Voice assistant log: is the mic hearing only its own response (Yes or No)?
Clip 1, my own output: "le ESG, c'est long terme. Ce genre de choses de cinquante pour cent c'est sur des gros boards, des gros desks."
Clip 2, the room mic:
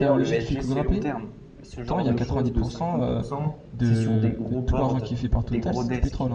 No